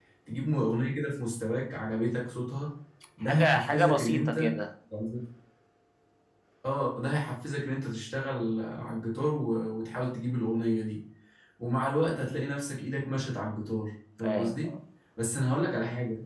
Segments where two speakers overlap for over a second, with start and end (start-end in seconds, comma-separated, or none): 3.3-4.5